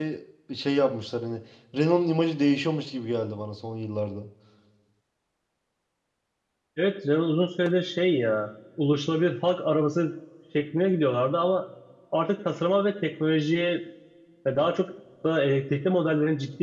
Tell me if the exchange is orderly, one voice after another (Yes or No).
Yes